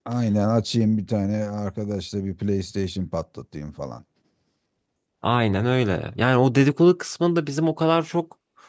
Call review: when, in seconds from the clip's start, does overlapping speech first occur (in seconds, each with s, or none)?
none